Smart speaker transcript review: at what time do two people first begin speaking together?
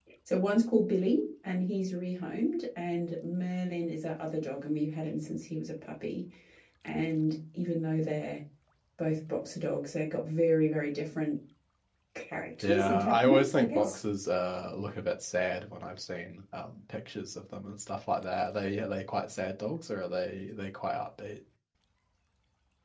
12.6 s

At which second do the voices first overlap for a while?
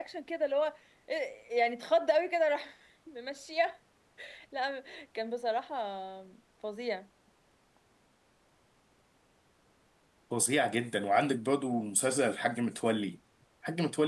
none

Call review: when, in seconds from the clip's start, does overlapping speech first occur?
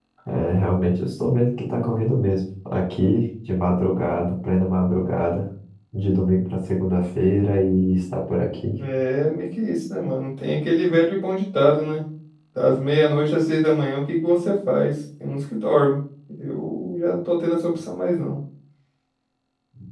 none

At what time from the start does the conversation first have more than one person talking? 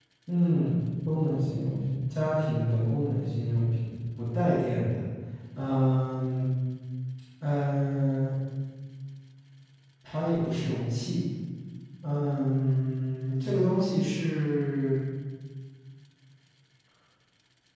none

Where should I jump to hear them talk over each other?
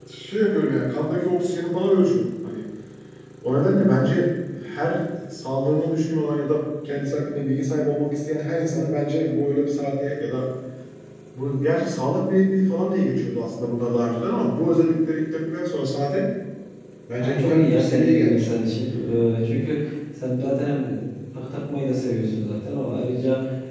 17.2 s

